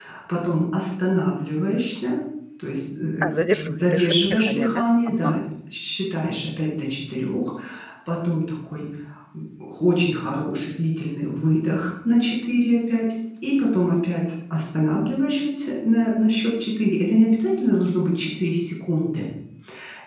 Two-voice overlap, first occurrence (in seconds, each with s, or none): 3.2 s